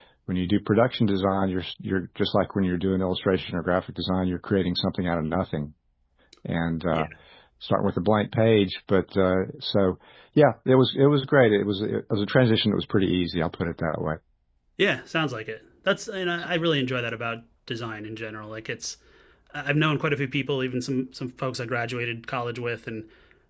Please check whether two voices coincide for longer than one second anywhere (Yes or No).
No